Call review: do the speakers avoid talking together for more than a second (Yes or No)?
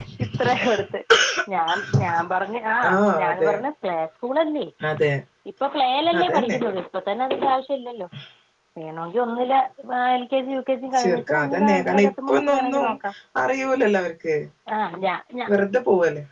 No